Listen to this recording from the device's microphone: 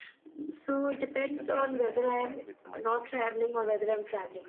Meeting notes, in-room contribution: present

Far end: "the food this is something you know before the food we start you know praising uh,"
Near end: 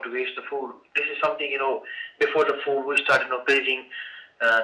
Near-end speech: none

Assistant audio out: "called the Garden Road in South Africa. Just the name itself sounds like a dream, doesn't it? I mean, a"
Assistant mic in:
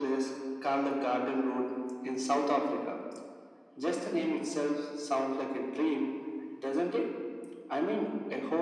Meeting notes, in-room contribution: none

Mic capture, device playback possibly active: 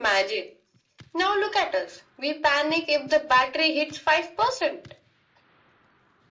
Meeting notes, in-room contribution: none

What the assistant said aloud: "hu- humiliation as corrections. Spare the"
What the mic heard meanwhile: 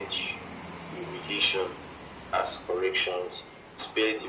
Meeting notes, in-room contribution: none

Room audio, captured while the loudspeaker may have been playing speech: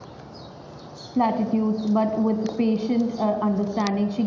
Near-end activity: present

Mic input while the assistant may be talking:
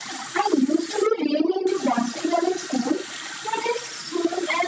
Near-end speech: none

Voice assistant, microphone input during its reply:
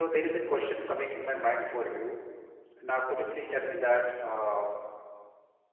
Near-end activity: present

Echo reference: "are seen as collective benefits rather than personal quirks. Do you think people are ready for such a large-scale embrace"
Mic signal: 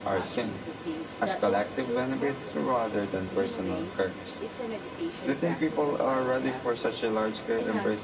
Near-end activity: present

